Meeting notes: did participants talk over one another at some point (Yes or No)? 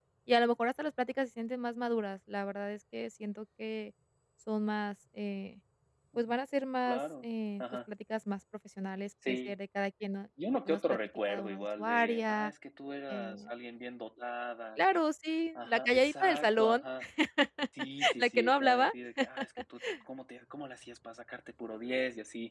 Yes